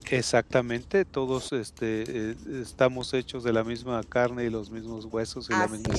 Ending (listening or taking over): taking over